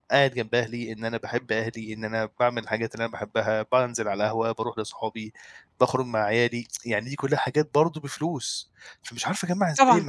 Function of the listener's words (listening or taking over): listening